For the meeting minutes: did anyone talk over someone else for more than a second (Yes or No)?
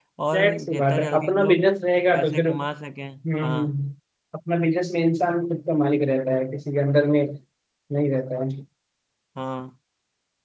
Yes